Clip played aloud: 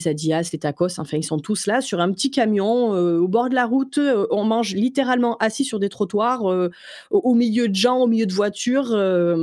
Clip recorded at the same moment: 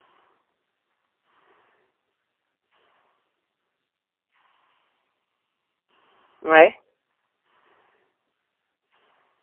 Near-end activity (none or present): present